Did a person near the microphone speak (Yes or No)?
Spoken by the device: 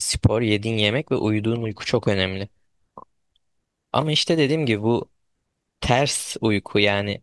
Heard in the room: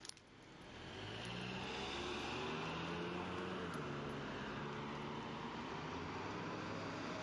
No